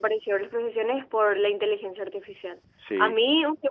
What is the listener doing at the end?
listening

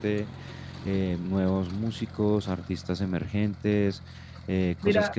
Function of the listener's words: listening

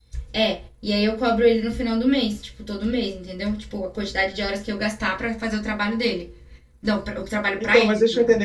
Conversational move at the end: taking over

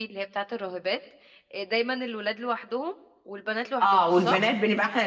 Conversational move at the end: taking over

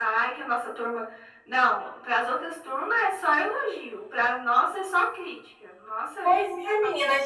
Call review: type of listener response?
taking over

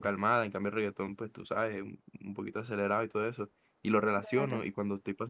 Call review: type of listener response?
listening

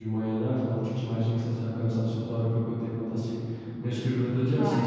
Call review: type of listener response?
listening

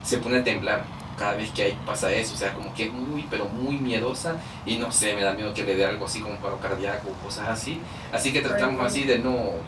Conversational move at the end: listening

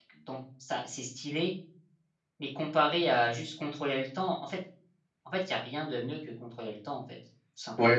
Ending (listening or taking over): taking over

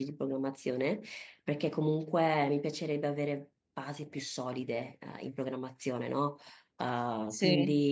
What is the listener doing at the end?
listening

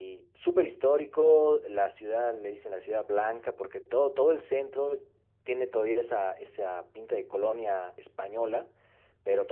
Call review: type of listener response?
listening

